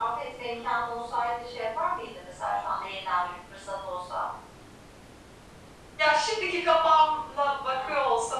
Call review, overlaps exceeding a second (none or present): none